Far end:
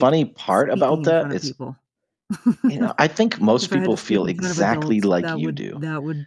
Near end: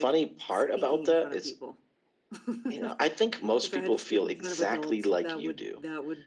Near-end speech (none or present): none